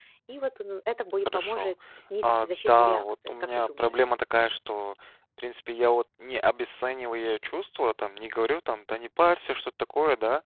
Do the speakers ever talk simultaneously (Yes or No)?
Yes